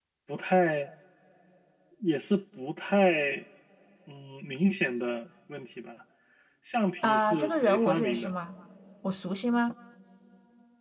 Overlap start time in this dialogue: 7.0 s

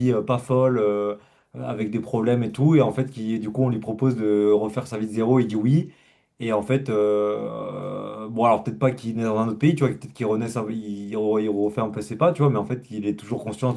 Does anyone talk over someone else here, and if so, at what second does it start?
none

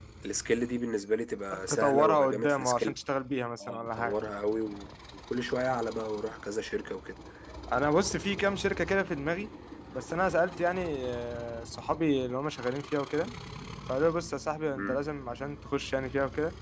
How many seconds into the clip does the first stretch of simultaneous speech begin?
1.5 s

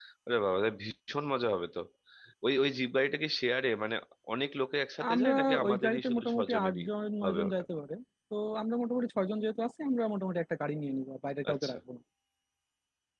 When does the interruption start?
5.1 s

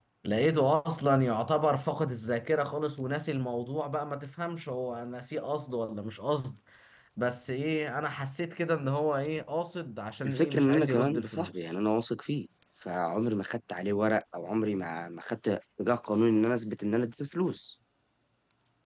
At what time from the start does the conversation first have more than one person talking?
10.2 s

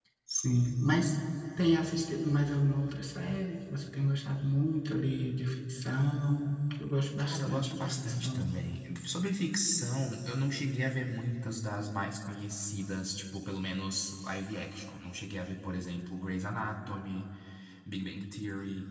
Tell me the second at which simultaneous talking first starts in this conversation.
7.2 s

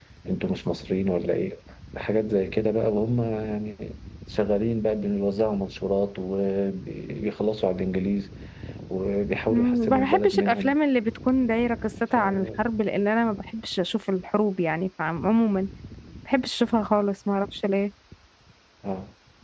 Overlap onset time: 9.5 s

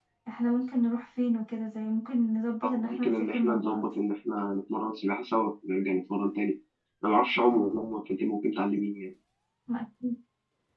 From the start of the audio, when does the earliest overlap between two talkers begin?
2.6 s

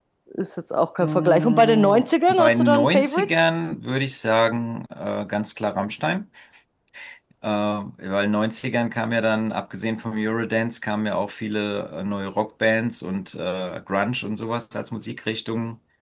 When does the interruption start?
1.0 s

